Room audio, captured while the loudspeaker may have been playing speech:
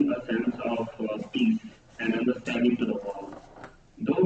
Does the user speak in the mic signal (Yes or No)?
No